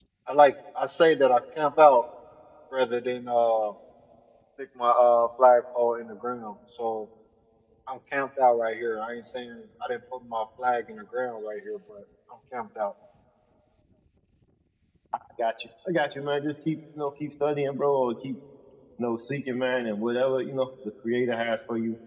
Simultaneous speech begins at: none

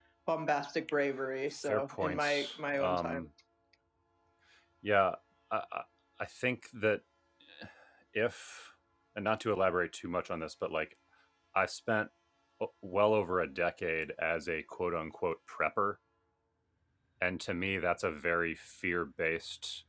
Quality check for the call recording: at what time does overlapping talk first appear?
2 s

